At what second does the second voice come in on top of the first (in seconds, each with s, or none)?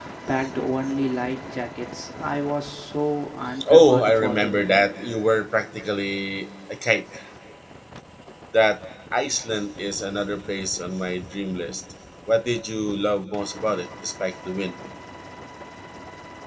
3.6 s